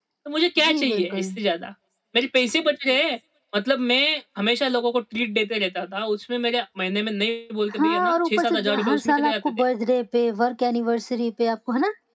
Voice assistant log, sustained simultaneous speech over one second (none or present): present